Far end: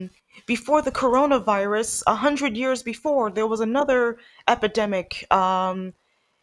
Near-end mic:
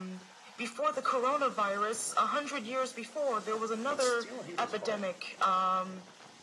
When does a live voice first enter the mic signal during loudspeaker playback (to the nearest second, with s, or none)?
4 s